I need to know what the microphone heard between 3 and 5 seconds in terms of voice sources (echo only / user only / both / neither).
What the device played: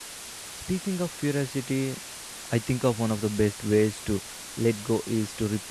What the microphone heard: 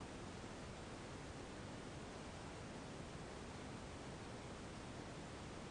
neither